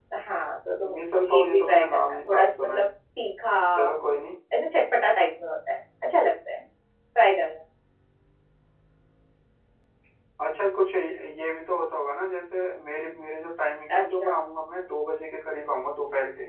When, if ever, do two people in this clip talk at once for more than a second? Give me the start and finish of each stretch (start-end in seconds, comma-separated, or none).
0.9-2.9